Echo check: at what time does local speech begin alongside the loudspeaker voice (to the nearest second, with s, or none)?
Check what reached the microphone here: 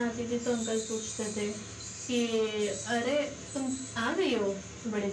none